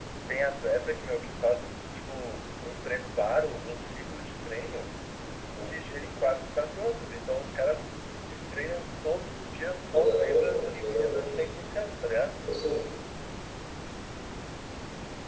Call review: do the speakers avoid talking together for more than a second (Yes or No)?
No